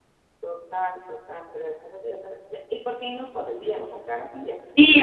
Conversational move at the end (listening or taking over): taking over